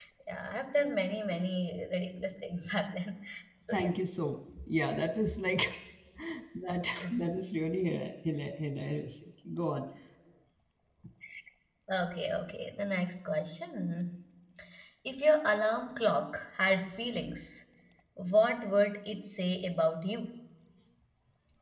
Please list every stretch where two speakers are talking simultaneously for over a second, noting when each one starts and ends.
none

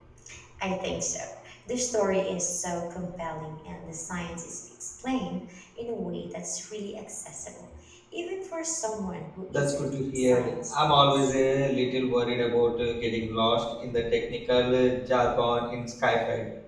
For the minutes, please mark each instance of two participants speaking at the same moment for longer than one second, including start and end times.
9.5-11.3

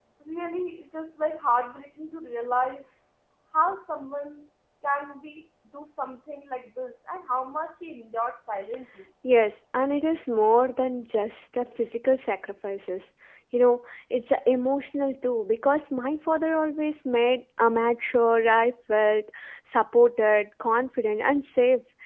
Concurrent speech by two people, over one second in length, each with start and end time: none

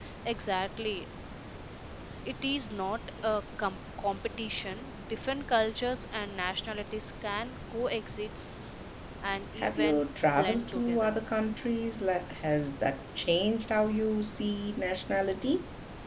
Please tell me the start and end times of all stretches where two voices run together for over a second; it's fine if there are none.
9.6-11.2

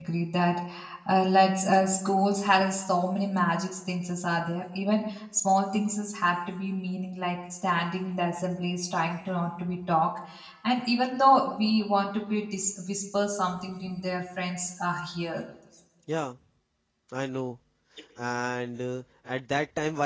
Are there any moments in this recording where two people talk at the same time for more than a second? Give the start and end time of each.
none

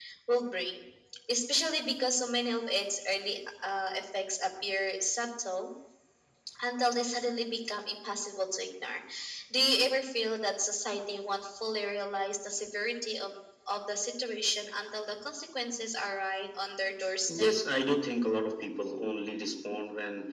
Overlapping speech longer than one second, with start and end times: none

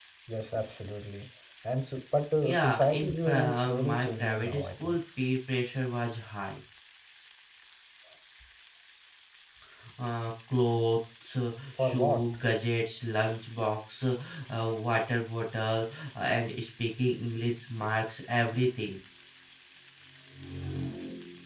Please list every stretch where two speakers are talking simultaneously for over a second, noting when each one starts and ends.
2.4-5.0

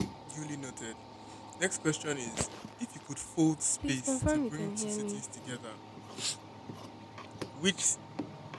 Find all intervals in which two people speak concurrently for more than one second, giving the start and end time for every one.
3.9-5.2

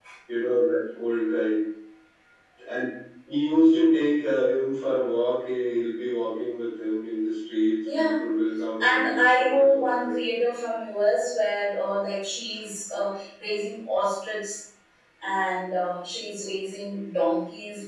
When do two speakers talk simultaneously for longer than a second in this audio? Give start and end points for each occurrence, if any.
8.8-10.1

